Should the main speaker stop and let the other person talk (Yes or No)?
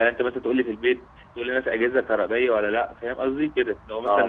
No